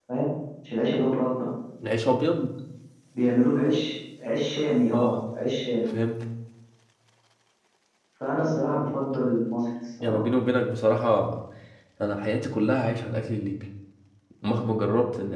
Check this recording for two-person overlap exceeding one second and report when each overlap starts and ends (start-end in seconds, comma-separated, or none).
none